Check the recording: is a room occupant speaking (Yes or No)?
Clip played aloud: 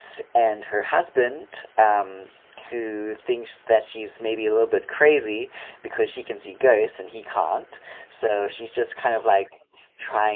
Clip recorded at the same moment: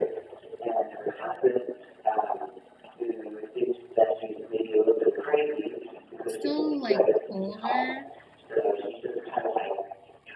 Yes